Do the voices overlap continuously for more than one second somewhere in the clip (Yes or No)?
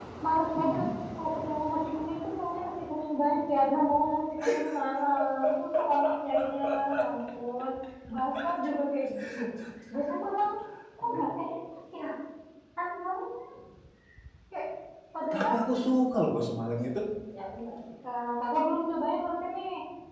No